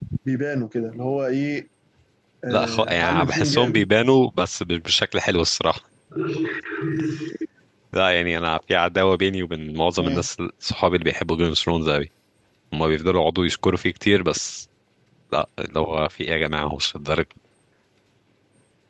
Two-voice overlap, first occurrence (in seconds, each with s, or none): 2.5 s